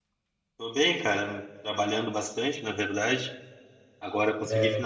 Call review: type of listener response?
listening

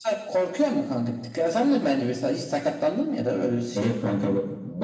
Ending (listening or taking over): taking over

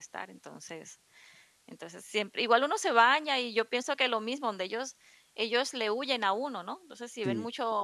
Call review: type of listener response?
listening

